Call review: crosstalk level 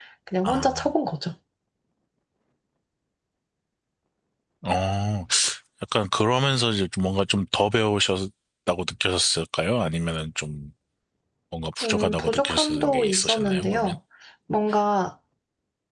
present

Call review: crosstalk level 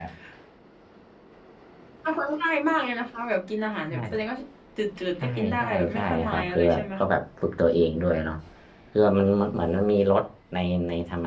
present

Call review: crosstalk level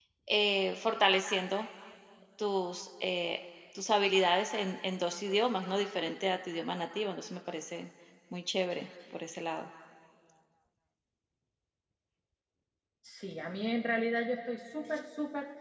none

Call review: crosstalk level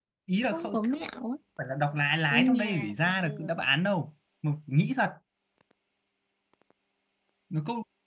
present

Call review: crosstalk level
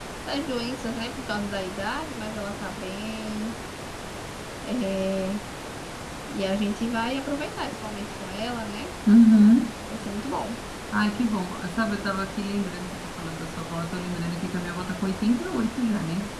none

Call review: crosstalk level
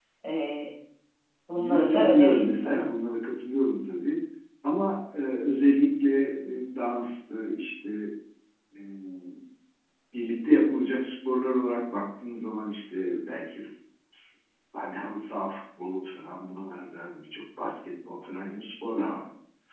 present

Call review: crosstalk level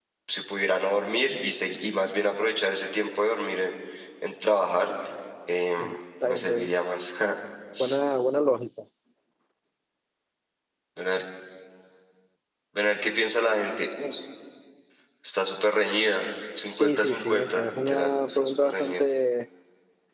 present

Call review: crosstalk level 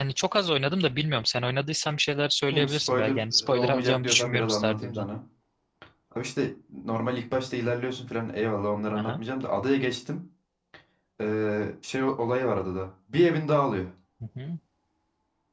present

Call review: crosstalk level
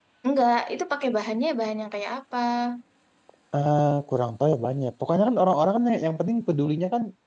none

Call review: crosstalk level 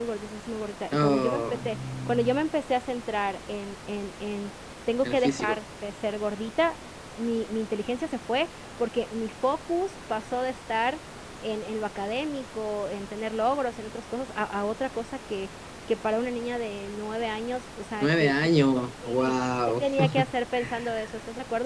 present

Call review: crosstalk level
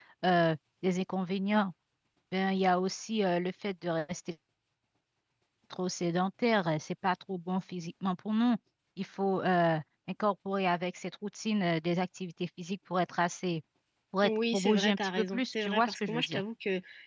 present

